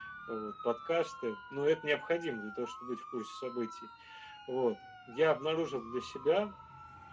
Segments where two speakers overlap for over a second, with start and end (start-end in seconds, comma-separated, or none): none